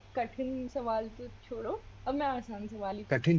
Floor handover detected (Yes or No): Yes